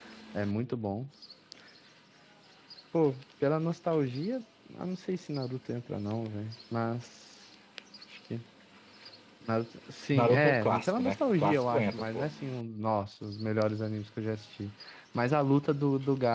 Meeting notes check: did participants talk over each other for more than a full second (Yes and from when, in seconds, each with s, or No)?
Yes, from 10.1 s